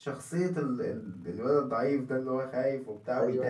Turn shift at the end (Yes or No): Yes